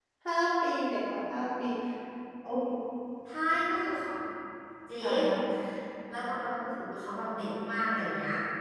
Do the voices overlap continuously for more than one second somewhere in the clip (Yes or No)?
No